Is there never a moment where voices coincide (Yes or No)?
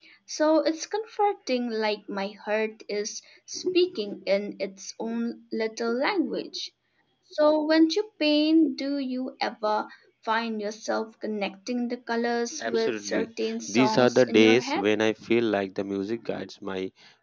No